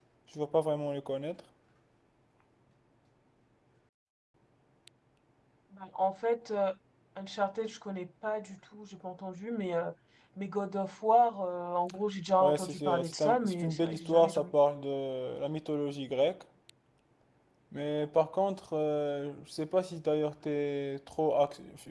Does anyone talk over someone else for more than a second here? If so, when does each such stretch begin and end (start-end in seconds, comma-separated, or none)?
12.4-14.5